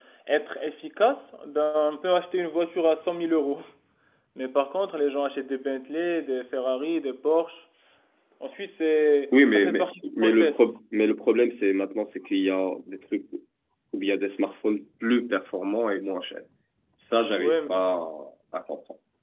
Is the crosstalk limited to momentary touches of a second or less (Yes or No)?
No